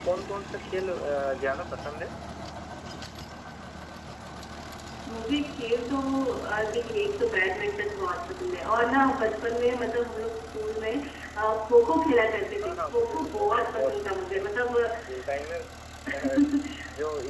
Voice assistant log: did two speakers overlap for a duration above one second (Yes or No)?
Yes